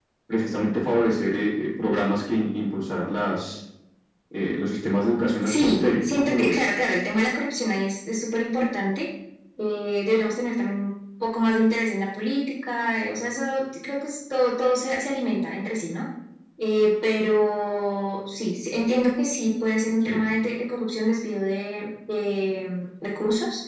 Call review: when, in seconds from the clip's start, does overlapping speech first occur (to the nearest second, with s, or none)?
5 s